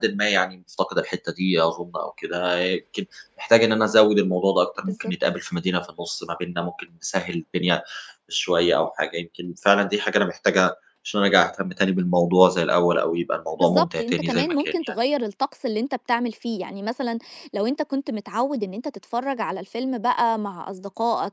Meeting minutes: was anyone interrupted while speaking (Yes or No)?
Yes